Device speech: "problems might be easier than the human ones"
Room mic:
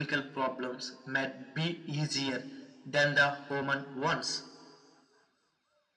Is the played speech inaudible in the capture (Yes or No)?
No